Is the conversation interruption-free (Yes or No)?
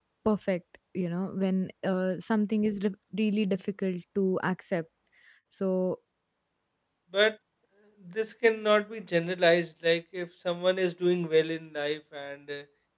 Yes